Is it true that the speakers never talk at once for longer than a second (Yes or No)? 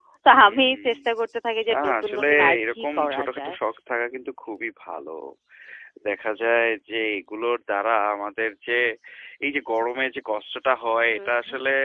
No